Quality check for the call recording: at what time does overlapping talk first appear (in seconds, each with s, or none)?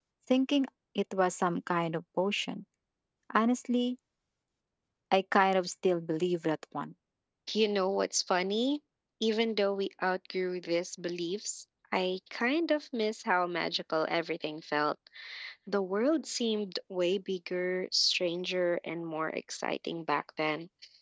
none